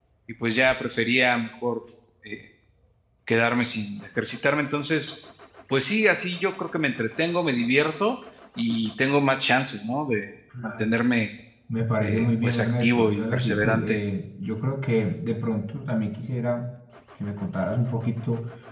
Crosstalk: present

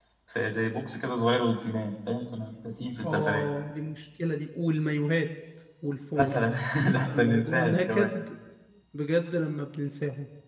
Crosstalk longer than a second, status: present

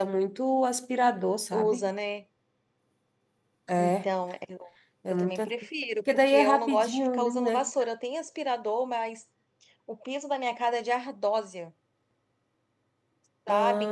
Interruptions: present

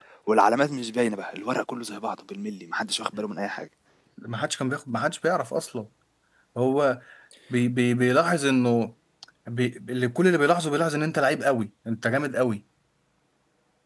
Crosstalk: none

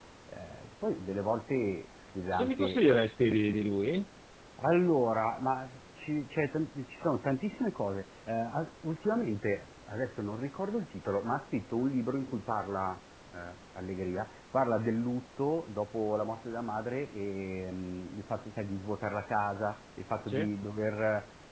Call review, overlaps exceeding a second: none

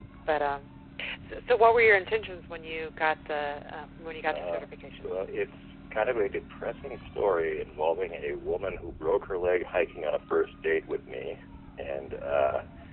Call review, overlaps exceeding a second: none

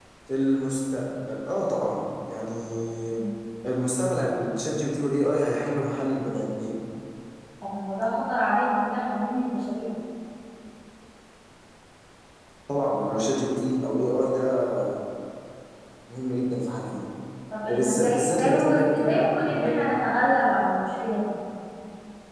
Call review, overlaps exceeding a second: present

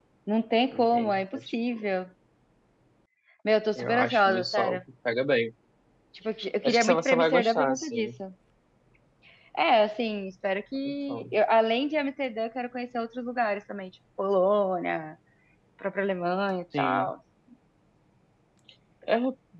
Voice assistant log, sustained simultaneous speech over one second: present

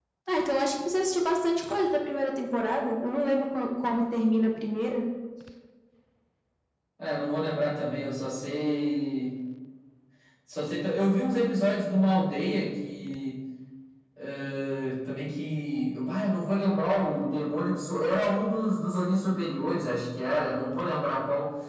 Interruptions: none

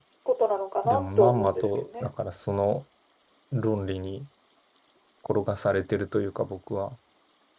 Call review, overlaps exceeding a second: present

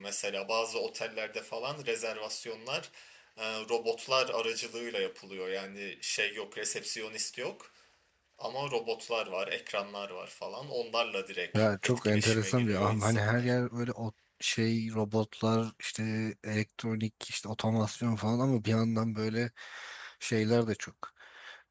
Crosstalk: present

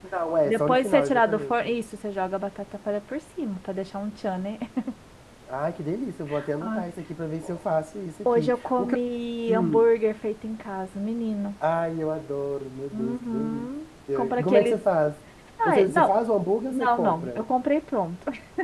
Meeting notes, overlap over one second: present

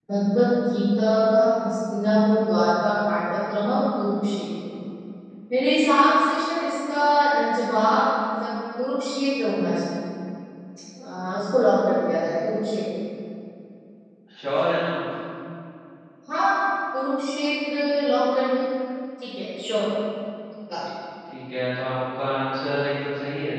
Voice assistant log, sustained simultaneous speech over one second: none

